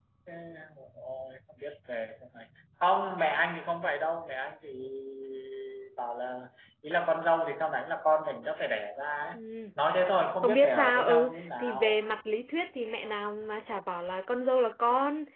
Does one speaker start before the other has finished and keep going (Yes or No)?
Yes